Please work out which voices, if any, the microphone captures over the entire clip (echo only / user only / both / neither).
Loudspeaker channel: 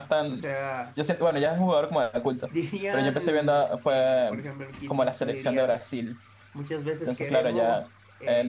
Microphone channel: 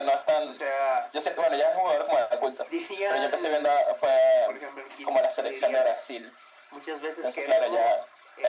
echo only